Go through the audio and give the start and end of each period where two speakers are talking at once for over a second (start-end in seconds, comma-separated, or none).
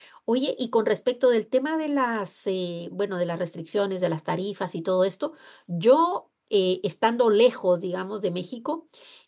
none